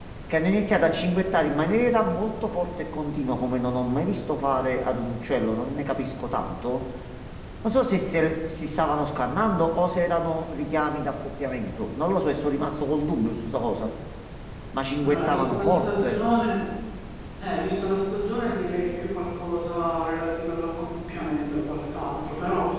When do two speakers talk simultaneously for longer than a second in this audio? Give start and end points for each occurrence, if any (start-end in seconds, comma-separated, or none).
15.0-16.2